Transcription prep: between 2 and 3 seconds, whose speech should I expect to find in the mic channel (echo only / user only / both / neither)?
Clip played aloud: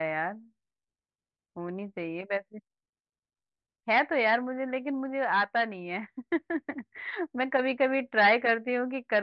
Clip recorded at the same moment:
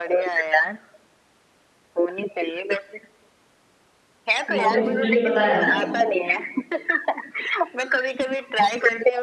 echo only